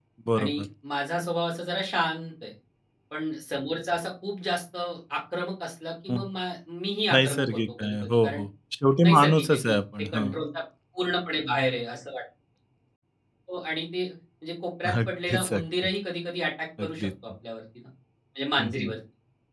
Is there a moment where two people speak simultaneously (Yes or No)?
Yes